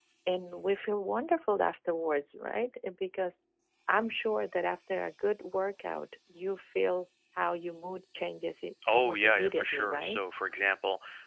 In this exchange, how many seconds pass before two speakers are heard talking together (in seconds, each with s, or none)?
8.8 s